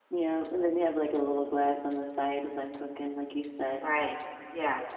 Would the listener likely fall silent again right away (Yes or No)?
No